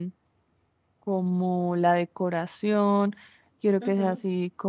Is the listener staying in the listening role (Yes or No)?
Yes